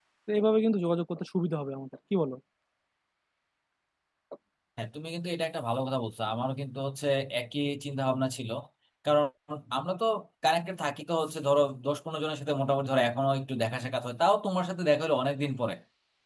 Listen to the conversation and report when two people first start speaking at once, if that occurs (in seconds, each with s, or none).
none